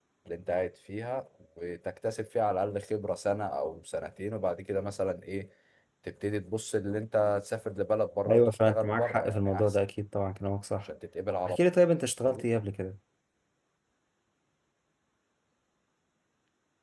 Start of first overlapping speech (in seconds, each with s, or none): 8.3 s